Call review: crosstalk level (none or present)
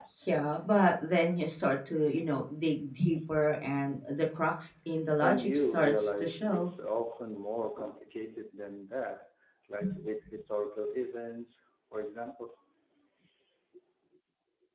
present